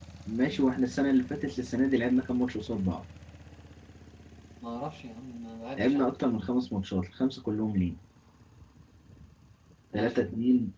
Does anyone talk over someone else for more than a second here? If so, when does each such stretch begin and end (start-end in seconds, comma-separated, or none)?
none